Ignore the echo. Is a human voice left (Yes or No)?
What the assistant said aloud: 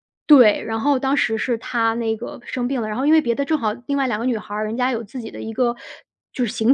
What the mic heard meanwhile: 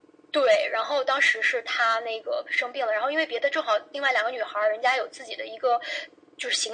No